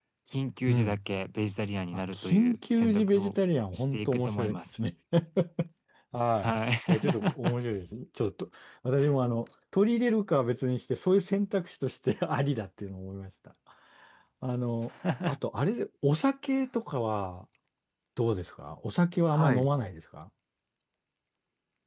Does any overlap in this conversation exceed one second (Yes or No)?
Yes